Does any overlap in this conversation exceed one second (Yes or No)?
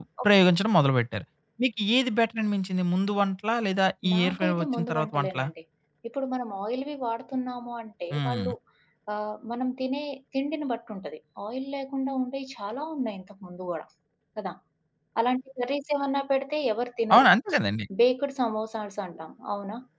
Yes